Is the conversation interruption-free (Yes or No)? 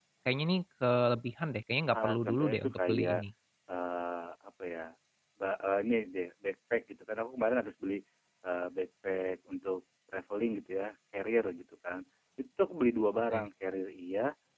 No